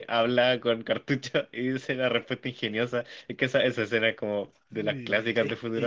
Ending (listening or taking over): taking over